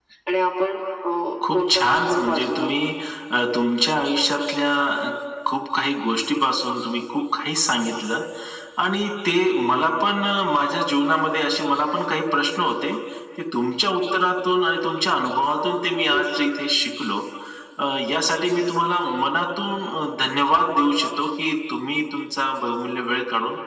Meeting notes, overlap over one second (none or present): present